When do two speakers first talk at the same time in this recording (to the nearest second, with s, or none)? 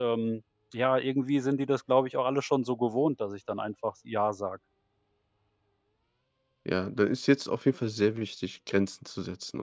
none